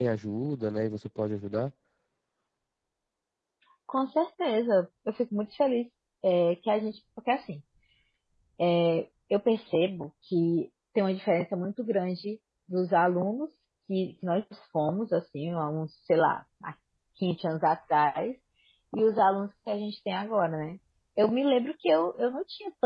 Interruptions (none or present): none